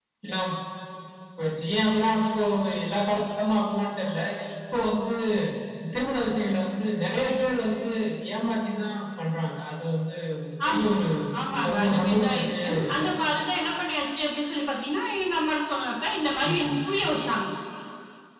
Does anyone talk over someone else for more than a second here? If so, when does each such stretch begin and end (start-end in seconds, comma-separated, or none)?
11.6-13.0